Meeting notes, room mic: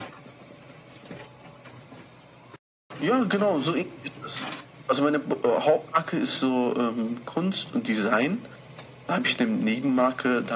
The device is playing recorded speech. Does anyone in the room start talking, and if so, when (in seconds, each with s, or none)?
none